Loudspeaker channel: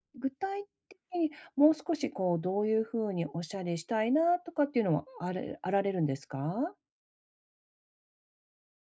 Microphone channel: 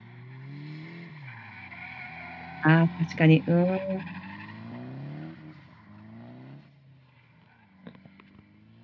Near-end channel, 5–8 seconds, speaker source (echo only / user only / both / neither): neither